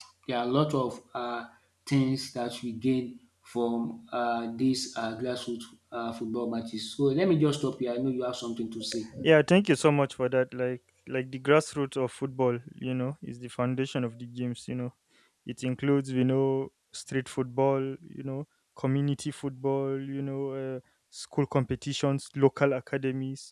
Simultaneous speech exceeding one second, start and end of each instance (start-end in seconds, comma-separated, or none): none